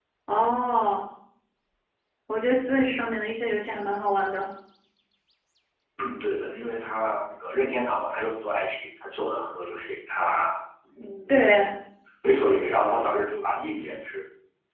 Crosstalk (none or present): none